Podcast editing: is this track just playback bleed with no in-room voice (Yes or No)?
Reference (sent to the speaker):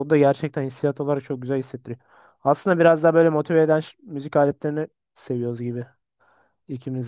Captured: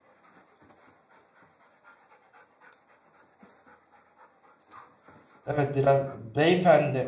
No